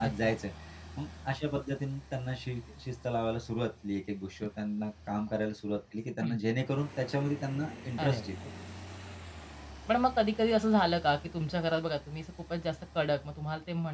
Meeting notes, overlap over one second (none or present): none